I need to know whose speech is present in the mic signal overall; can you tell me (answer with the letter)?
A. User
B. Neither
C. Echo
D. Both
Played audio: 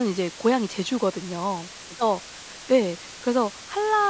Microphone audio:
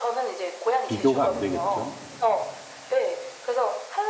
D